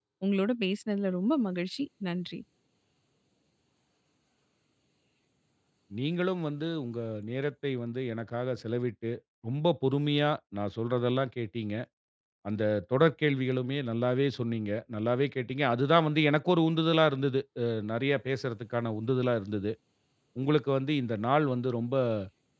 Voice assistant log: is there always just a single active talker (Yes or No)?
Yes